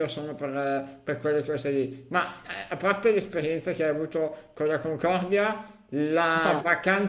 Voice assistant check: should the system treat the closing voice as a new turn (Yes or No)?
No